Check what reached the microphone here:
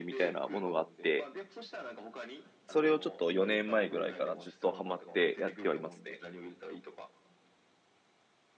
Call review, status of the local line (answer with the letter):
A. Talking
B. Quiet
A